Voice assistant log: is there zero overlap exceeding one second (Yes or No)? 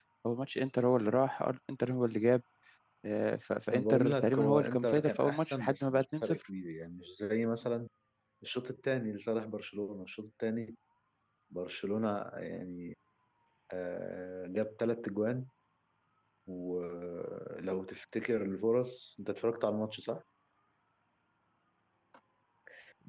No